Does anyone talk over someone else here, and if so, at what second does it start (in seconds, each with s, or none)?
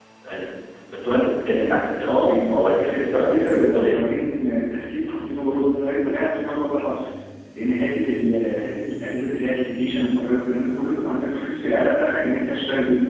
2.1 s